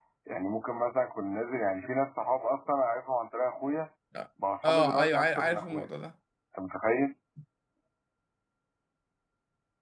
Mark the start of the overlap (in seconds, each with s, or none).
4.6 s